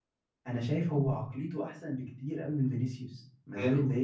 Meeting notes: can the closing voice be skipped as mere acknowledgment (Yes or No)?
No